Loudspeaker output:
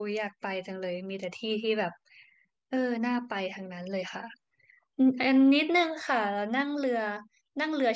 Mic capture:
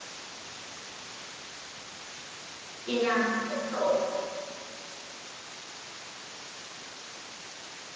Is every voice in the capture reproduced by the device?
No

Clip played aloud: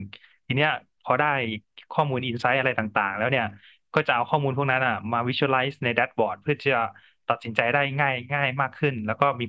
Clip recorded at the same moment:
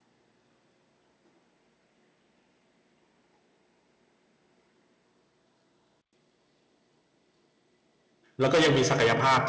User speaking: Yes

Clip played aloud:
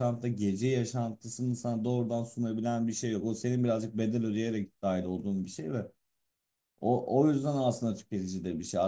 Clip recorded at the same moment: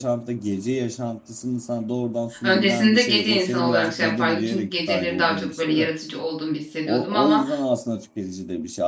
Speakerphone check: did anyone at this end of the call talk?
Yes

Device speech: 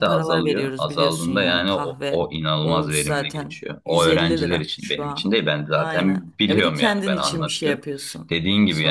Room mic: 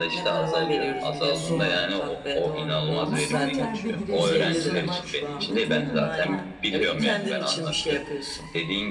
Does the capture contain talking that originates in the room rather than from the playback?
Yes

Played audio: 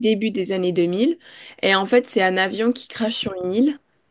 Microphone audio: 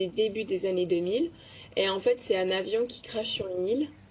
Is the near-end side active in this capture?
No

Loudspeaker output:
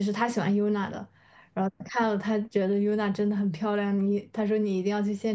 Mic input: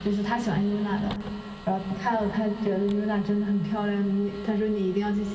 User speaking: No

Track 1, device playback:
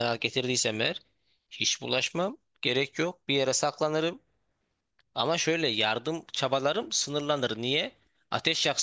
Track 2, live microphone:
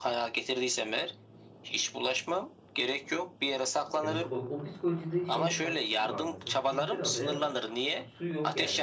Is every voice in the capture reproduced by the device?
No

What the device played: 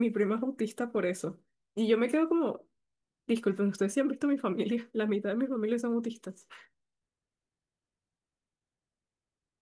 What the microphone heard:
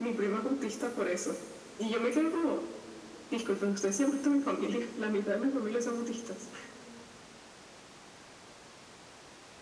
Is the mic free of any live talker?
Yes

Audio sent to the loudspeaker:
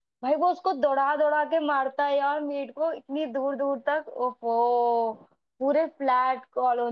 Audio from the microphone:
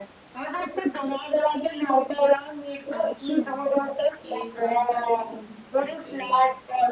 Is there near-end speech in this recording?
Yes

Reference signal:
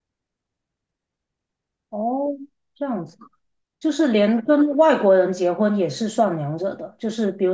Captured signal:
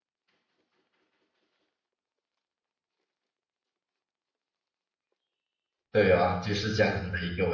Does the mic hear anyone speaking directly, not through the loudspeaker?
Yes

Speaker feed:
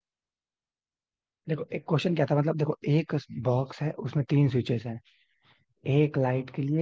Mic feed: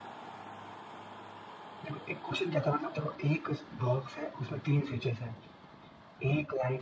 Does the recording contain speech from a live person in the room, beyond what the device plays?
No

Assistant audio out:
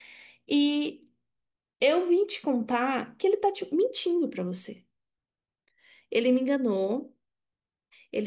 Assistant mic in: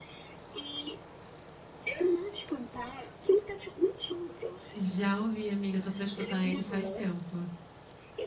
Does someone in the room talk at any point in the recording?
Yes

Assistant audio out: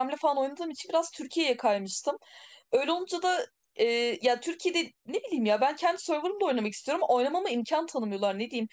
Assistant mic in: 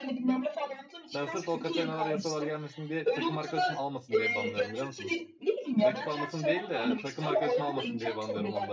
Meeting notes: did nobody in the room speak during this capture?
No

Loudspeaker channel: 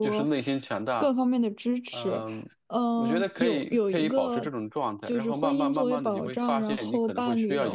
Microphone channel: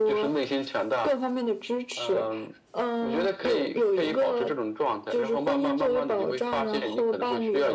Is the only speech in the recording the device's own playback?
Yes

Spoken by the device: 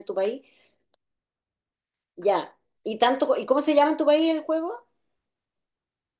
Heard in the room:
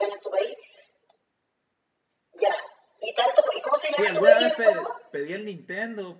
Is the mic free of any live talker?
No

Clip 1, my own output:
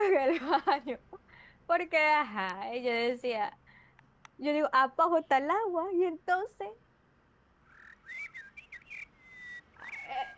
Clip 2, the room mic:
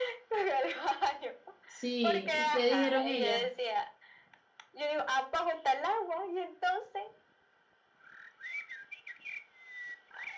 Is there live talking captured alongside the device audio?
Yes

